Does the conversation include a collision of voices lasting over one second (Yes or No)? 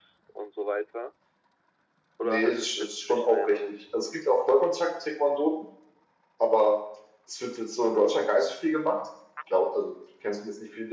Yes